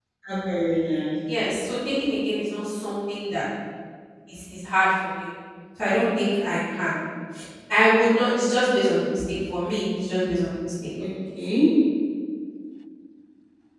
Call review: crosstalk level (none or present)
none